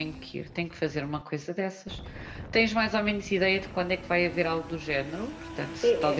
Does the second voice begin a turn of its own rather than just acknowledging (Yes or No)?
Yes